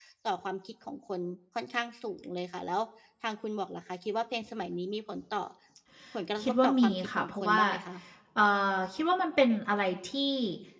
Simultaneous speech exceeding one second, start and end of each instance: 6.4-7.6

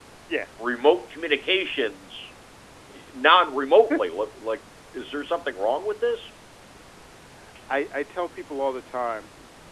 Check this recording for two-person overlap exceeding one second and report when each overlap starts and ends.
none

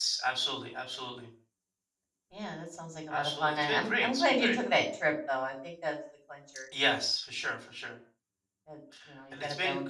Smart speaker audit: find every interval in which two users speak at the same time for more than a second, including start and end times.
3.1-4.6

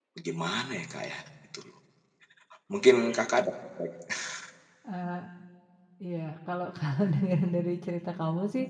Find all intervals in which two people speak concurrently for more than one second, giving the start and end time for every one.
none

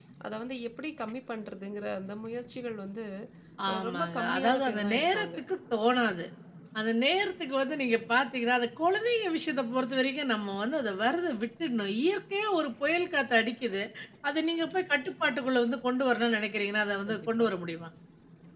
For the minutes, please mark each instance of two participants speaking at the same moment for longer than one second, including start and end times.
3.7-5.3

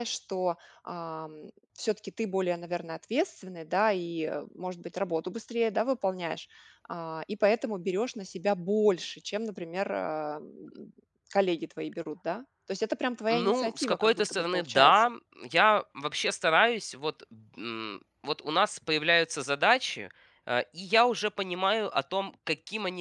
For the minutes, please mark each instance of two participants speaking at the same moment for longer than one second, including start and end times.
13.3-15.1

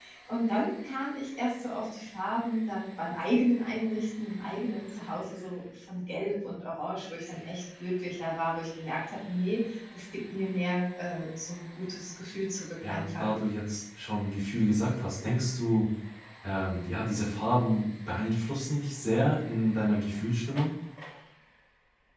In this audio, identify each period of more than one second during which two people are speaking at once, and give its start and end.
none

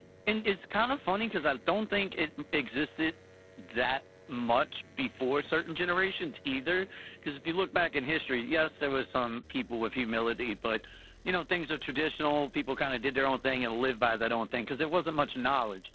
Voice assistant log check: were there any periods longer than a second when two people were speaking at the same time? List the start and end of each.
none

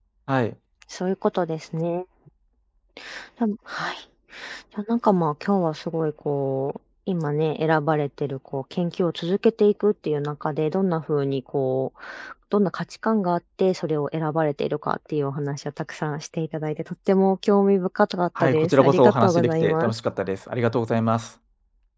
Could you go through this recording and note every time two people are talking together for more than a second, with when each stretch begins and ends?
18.4-19.9

